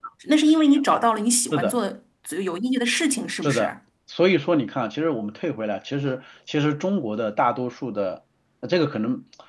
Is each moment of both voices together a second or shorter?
Yes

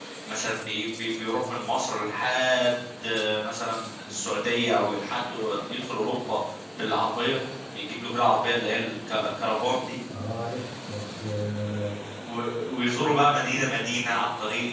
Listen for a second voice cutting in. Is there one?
No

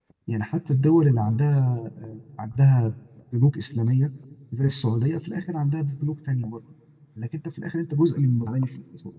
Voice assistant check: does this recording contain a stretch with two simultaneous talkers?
No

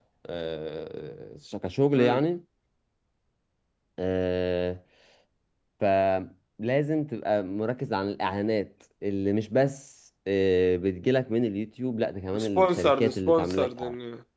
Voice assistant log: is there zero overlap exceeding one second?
No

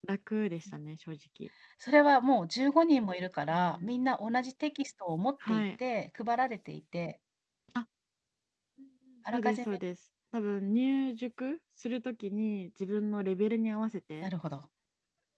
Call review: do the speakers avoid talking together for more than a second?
Yes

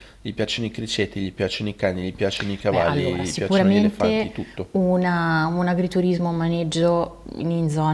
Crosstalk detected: Yes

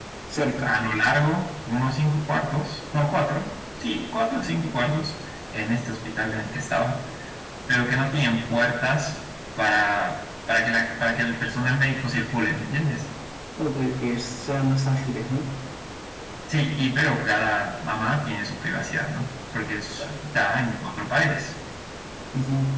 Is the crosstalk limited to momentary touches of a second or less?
Yes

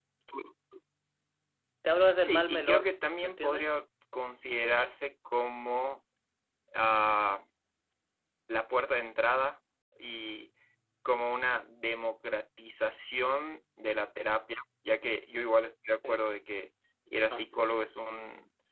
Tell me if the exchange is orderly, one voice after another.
No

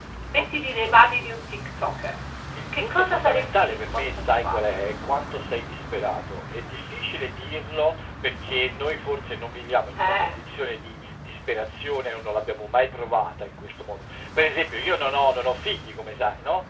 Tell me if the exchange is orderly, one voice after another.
No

